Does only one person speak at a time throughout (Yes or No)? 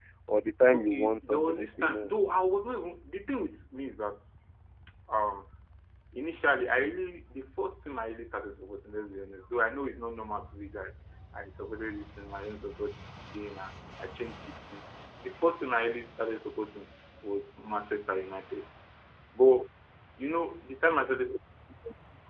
No